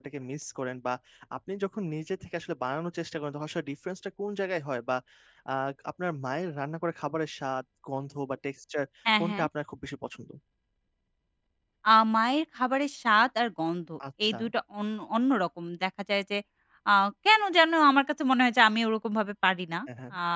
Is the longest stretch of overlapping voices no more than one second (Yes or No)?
Yes